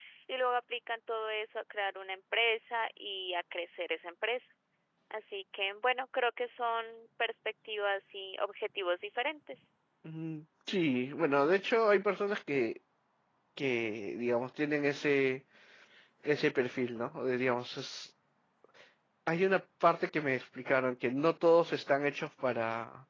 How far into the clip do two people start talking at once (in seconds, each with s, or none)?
none